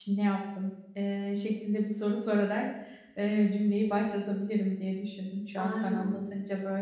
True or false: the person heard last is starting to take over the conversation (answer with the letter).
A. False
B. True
A